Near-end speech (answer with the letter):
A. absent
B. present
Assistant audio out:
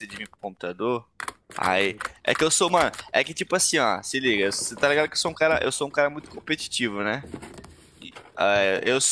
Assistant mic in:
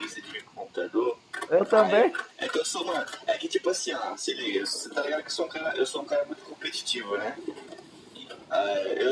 B